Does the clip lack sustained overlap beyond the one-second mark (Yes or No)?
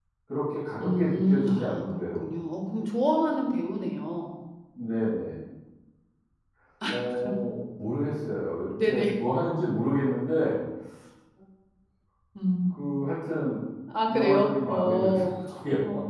No